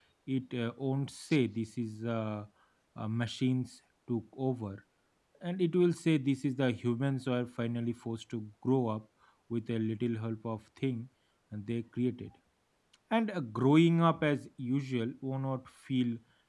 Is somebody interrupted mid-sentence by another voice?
No

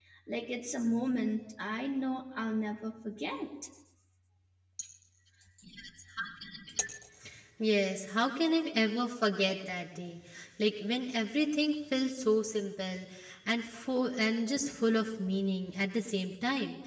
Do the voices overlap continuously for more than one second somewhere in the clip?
No

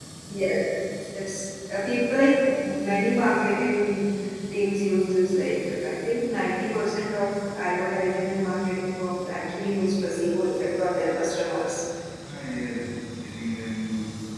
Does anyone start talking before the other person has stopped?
No

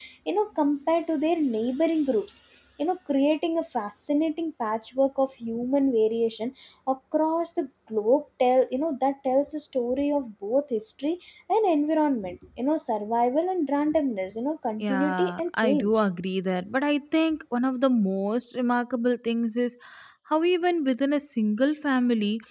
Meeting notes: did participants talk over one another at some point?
Yes, from 14.8 s

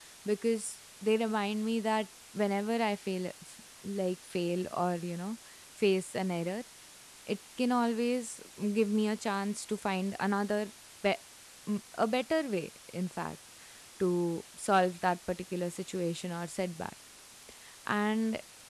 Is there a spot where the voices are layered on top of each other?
No

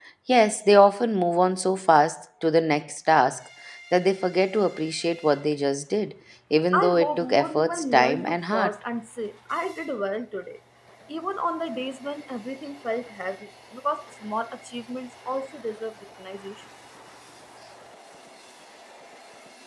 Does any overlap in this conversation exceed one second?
Yes, from 6.7 s

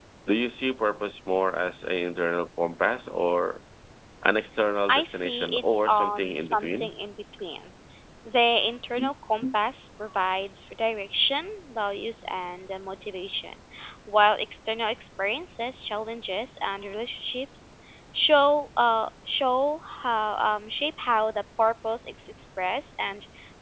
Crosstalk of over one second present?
Yes, from 4.9 s

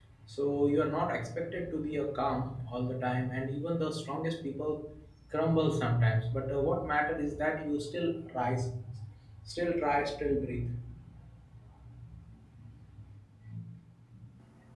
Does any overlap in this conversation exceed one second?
No

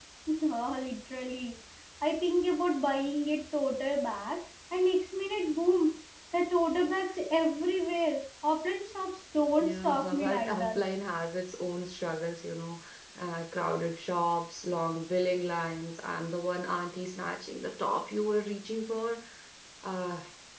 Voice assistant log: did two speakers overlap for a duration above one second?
Yes, from 9.6 s

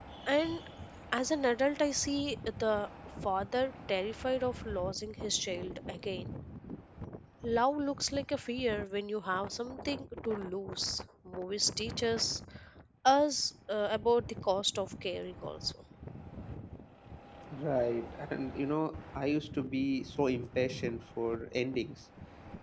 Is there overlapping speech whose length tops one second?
No

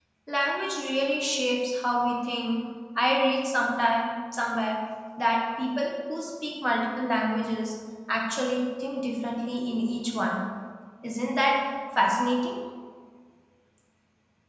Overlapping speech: No

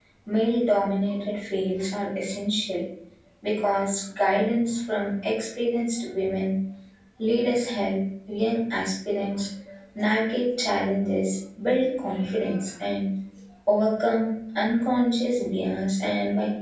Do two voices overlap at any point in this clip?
No

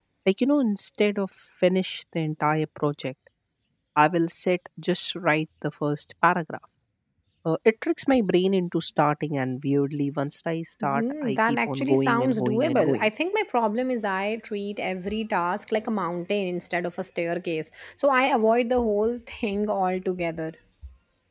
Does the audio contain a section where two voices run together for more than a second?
Yes, from 10.8 s

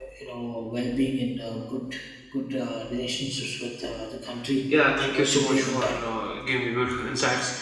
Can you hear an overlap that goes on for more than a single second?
Yes, from 4.8 s

